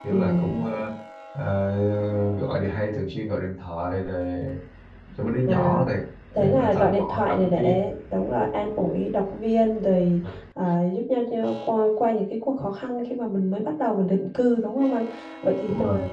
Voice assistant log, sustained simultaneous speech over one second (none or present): present